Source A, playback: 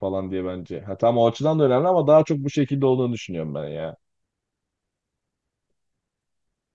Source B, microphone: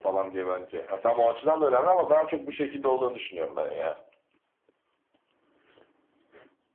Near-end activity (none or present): none